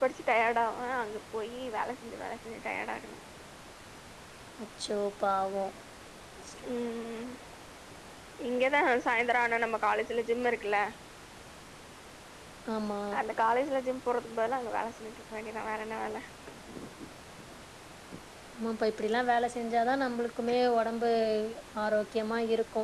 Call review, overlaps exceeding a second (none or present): none